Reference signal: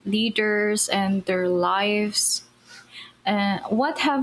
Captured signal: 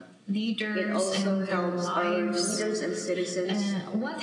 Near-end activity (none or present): present